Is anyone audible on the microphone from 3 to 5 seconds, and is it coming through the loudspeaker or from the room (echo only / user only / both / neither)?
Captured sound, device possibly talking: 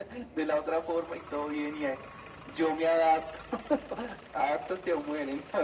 echo only